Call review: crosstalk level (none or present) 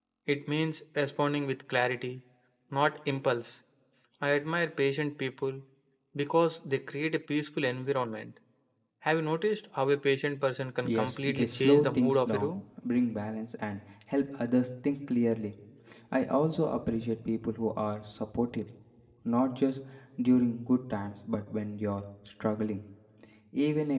present